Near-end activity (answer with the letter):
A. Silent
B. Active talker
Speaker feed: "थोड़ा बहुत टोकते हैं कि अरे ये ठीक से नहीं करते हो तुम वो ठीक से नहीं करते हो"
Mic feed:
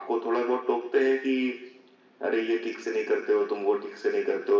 A